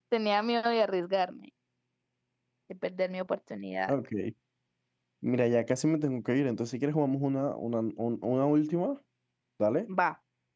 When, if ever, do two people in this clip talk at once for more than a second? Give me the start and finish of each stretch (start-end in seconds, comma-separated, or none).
none